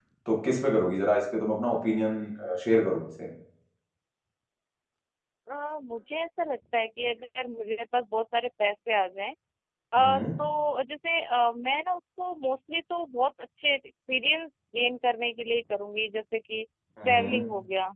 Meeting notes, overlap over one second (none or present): none